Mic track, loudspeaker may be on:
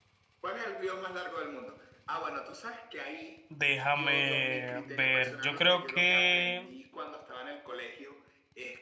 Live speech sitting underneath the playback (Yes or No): No